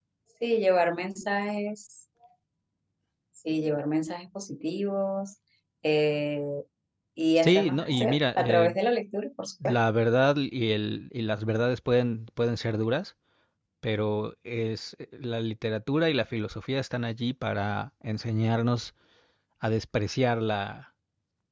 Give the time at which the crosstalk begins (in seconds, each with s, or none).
7.4 s